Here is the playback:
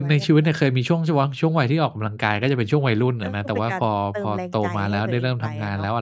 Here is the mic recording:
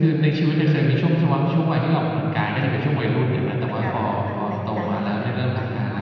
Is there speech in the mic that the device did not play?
No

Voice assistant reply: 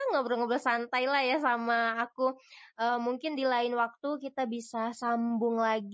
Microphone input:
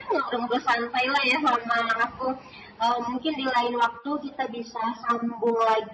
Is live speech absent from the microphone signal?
Yes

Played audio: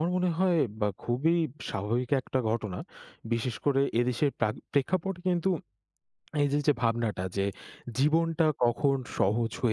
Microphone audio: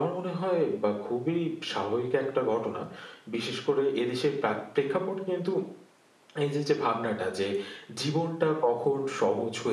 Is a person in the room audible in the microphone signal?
No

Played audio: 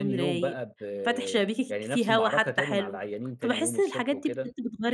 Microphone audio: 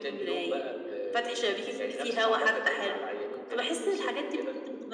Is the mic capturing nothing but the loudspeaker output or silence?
Yes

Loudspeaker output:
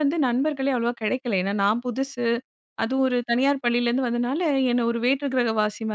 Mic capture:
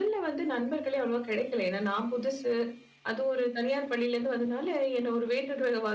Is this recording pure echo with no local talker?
Yes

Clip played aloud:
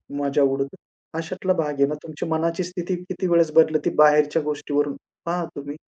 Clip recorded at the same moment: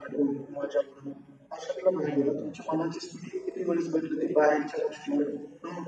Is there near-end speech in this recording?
Yes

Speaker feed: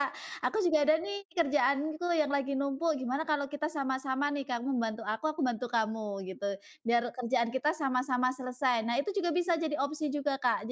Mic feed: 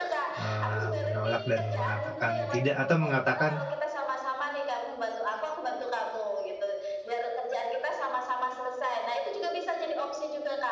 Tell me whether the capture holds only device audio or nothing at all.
No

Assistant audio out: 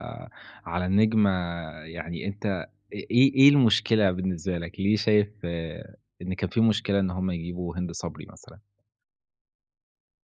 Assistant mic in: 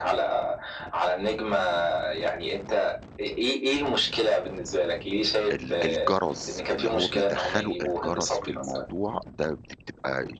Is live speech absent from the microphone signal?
No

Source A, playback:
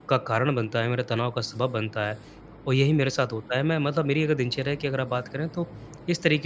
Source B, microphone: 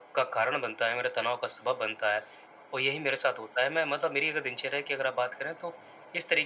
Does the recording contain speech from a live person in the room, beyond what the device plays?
No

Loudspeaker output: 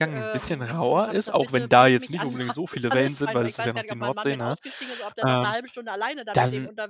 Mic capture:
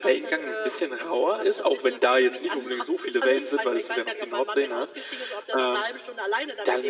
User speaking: No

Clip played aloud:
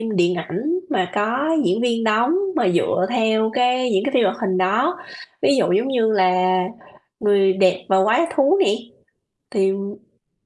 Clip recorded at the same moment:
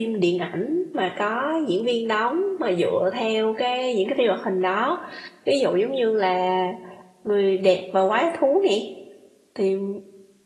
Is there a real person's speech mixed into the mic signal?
No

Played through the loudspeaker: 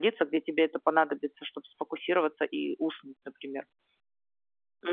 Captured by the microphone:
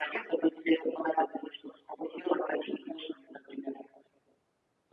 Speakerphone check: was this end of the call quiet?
Yes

